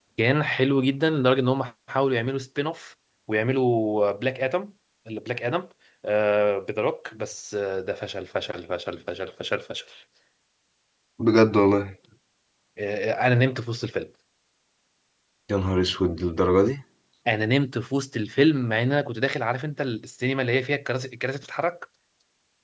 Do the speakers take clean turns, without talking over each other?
Yes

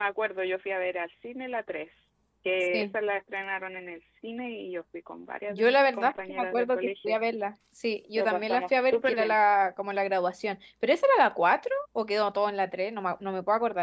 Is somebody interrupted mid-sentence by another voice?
Yes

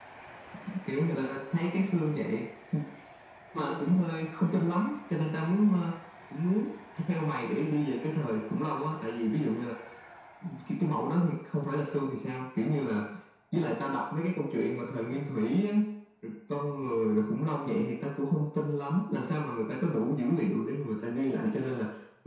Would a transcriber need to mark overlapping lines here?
No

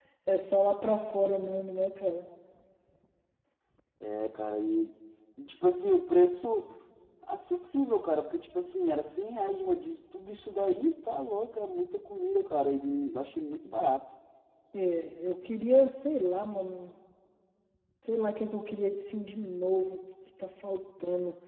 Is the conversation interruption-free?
Yes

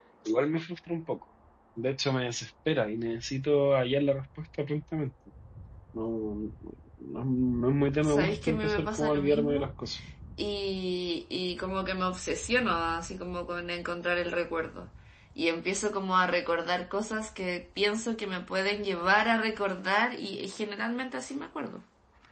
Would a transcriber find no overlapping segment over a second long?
No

